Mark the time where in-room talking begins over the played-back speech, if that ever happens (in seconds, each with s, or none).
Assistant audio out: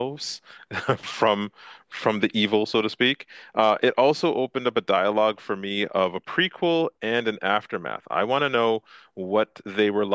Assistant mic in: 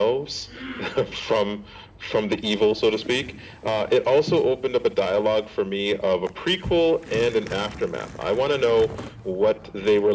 none